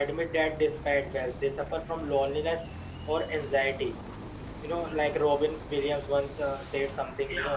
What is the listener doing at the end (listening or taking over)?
listening